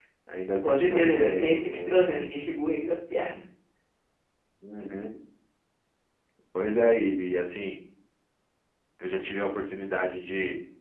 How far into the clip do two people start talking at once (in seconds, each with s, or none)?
0.7 s